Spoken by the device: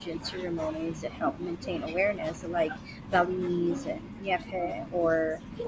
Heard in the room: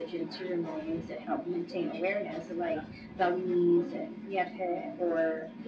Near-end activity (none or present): none